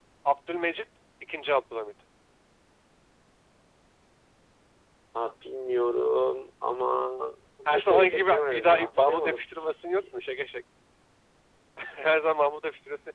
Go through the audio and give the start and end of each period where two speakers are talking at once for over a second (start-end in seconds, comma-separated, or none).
7.7-9.4